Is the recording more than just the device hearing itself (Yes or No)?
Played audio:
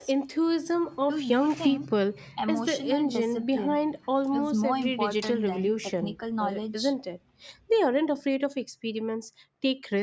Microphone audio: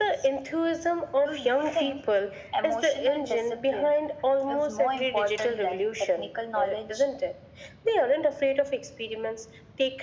No